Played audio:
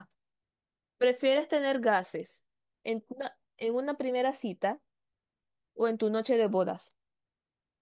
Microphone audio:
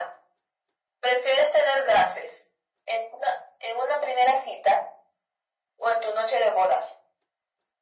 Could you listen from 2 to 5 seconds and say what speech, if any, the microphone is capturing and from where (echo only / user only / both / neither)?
echo only